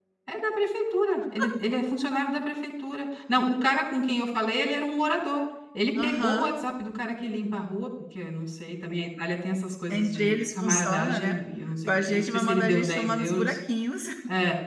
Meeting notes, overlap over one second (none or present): present